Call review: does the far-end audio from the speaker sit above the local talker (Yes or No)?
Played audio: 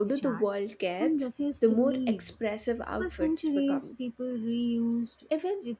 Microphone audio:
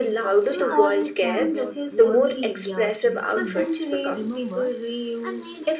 Yes